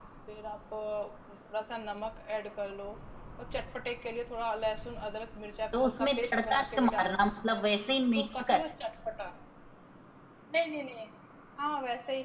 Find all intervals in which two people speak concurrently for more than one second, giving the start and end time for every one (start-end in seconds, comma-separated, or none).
5.7-7.6